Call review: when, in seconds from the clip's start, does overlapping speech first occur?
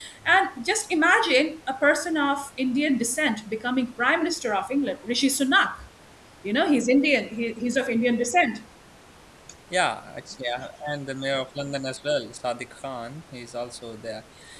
none

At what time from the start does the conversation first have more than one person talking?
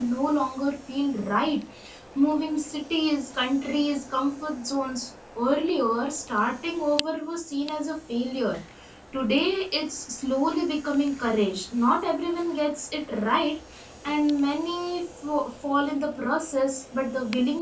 none

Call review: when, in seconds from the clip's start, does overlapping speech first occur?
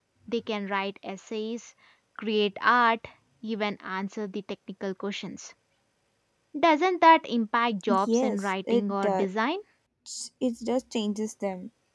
7.9 s

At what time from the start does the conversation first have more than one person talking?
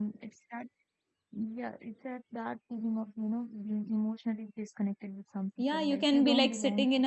5.6 s

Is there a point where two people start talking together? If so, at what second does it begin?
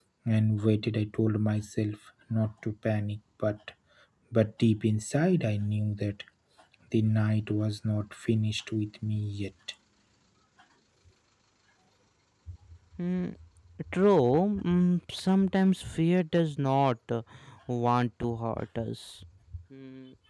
none

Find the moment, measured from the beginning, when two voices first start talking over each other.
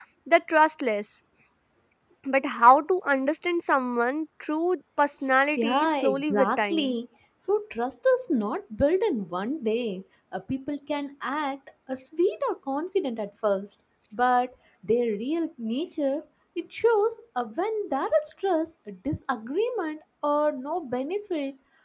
5.6 s

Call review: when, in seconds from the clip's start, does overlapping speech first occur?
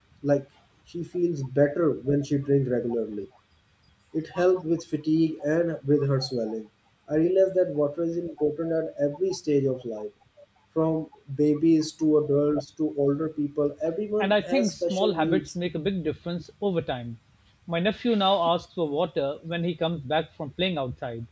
14.2 s

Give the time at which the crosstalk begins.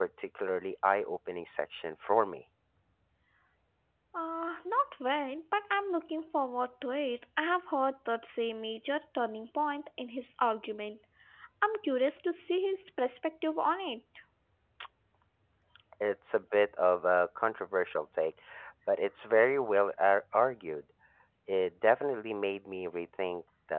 none

